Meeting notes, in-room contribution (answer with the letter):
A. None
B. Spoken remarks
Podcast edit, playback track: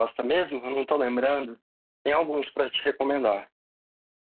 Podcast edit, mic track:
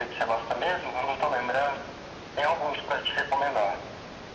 A